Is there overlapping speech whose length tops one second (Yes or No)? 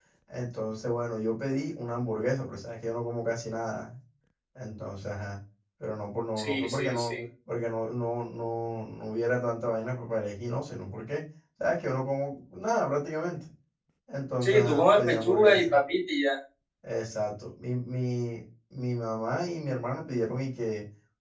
Yes